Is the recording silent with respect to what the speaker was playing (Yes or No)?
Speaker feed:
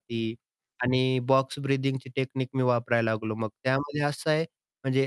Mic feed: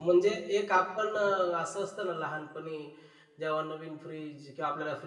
Yes